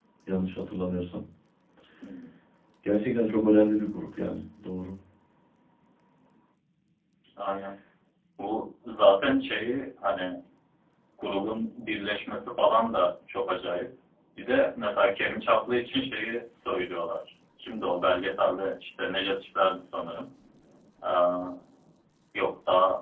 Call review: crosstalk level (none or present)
none